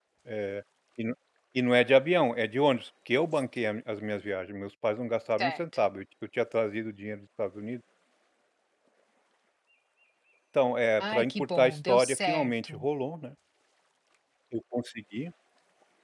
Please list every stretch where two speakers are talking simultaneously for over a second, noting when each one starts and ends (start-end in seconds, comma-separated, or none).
11.0-12.7